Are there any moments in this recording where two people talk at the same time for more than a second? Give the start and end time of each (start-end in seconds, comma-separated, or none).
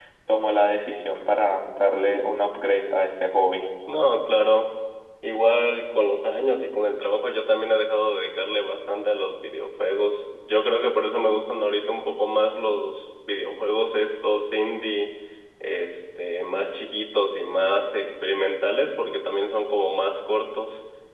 none